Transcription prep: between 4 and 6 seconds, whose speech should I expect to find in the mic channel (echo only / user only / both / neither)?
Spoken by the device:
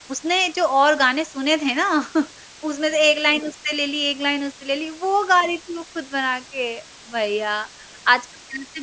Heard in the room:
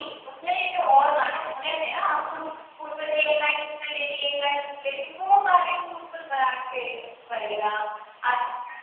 echo only